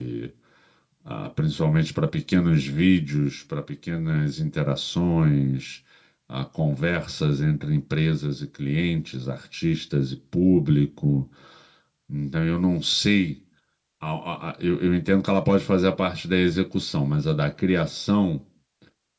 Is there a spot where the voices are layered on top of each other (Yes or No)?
No